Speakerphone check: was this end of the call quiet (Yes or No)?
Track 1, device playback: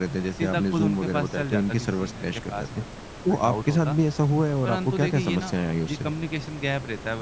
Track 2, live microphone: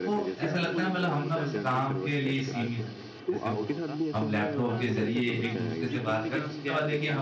No